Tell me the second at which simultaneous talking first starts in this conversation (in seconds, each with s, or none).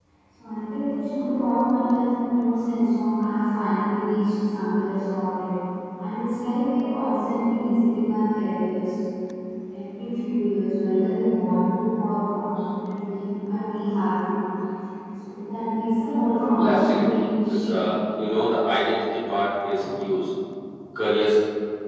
16.6 s